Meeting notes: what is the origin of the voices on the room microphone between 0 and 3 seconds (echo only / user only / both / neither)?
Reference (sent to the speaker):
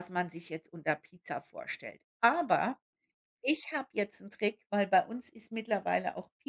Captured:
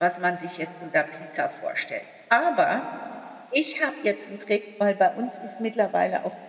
echo only